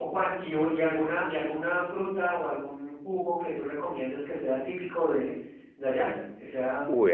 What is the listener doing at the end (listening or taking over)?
taking over